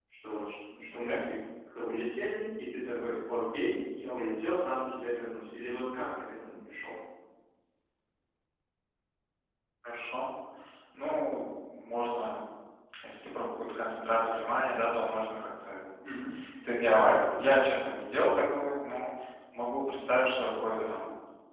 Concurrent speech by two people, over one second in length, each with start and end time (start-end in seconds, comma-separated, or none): none